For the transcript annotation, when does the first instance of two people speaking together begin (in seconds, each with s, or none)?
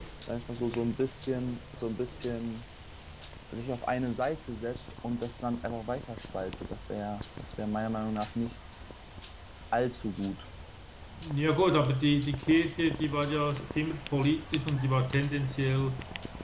none